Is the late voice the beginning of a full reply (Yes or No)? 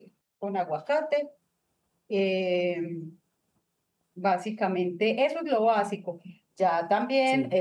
No